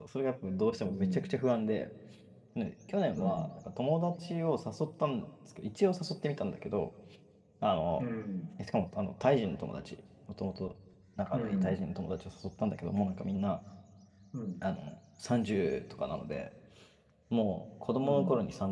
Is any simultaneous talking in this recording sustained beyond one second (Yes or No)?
No